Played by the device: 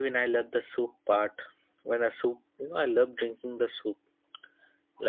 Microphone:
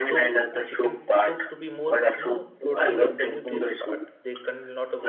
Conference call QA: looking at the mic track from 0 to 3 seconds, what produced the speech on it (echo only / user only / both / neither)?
both